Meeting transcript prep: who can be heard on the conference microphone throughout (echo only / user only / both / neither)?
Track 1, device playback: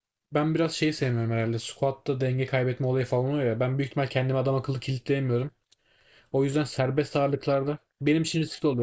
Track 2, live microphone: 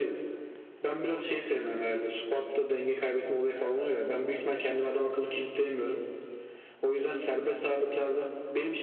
echo only